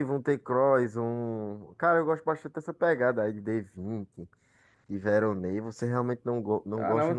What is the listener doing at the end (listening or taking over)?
taking over